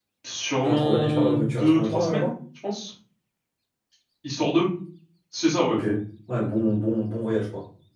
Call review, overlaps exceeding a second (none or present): present